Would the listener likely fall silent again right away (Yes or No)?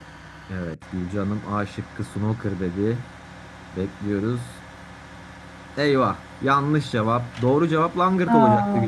Yes